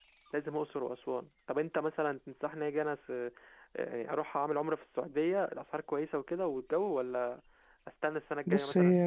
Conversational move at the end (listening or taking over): taking over